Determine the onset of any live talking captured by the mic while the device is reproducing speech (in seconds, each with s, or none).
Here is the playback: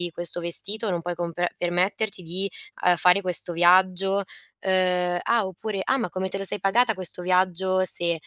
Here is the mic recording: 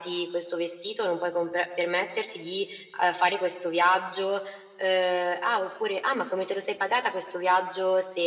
none